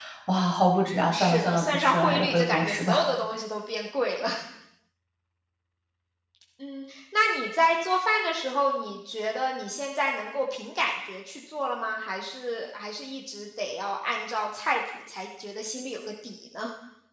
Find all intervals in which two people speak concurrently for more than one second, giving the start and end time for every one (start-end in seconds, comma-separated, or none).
1.1-3.1